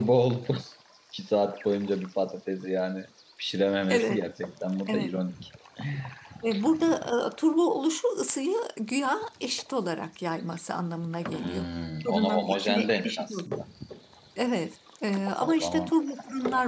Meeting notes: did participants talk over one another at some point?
Yes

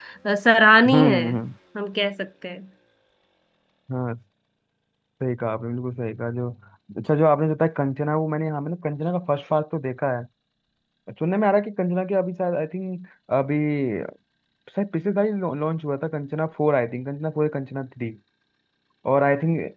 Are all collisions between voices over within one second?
Yes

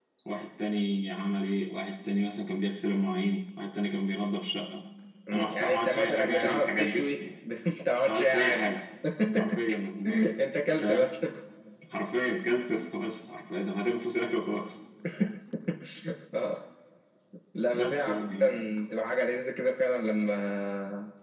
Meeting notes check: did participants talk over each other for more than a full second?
Yes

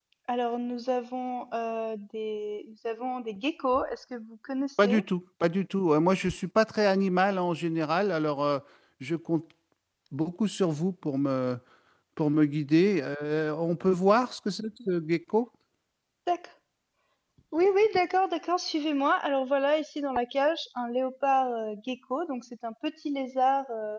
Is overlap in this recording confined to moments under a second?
Yes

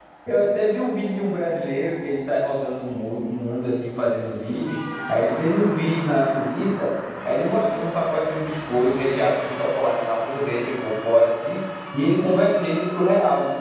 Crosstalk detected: No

